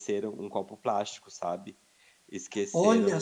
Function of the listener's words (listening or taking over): listening